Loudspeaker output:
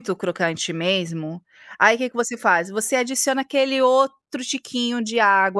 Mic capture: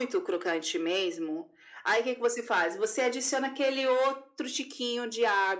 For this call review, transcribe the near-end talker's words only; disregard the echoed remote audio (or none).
none